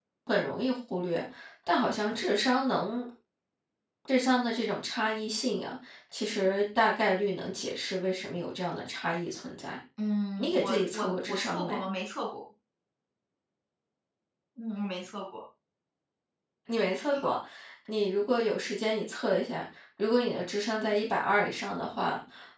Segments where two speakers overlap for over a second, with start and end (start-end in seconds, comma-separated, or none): 10.4-11.8